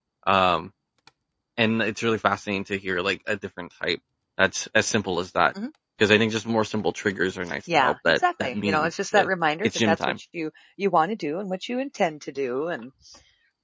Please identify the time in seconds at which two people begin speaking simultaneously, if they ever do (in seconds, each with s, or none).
7.7 s